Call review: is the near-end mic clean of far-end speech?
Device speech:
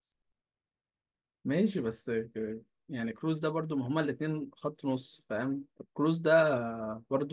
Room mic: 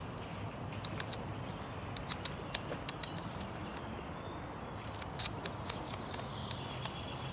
Yes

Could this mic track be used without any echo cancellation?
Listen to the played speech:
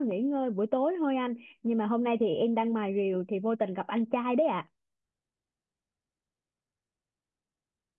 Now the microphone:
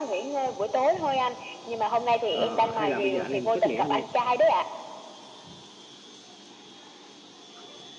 No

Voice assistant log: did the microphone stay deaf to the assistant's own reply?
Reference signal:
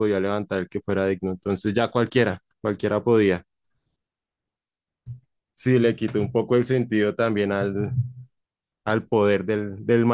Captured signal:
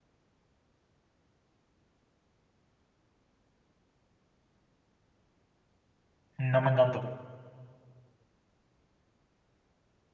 Yes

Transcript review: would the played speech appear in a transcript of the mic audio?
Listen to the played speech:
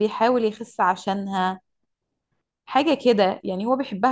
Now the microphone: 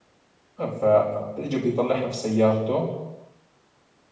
No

